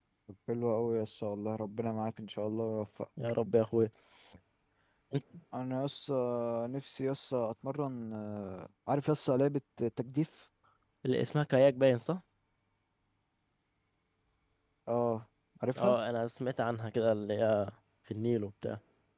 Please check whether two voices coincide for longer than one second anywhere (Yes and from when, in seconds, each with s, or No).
No